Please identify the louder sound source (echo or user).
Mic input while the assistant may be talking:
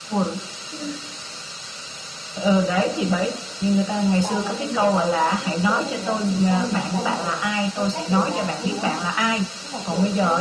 echo